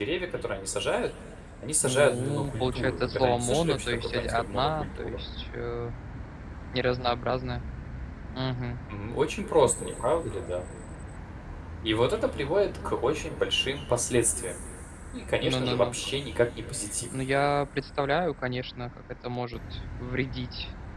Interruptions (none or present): present